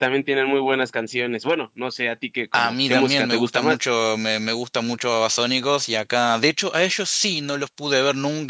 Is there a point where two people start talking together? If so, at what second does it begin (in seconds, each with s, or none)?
2.5 s